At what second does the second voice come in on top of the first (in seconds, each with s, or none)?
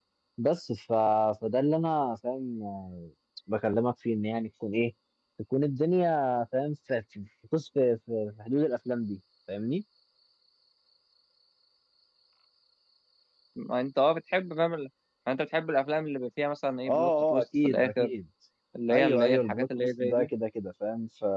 16.9 s